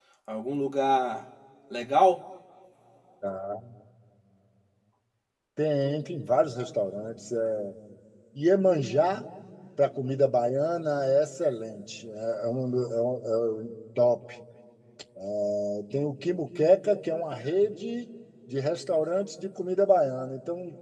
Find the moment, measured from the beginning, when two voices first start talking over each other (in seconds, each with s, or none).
none